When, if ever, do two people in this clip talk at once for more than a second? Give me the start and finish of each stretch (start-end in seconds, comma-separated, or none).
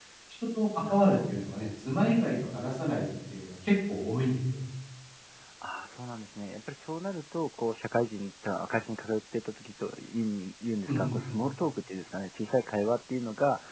none